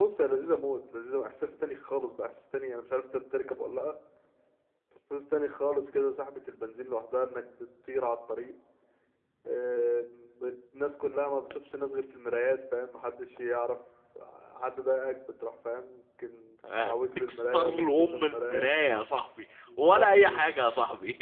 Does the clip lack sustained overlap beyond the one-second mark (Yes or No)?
No